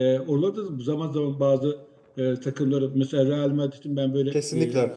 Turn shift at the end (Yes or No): No